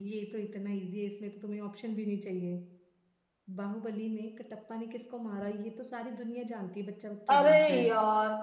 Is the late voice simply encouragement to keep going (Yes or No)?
No